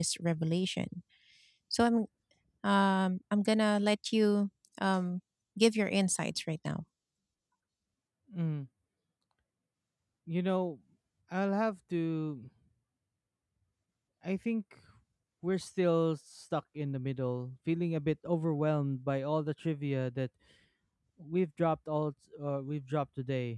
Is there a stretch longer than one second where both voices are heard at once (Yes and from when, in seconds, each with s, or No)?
No